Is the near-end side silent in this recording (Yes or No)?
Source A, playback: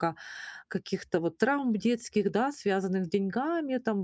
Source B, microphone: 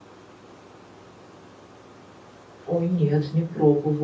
No